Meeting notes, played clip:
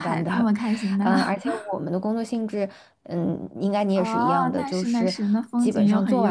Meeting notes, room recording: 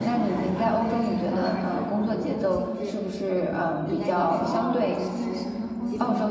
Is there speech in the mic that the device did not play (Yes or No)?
Yes